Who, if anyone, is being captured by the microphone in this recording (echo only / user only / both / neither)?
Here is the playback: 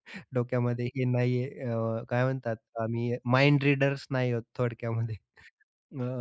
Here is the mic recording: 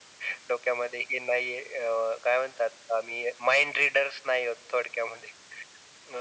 echo only